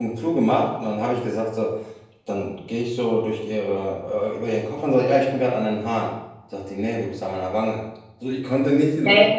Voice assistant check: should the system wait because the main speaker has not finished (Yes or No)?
Yes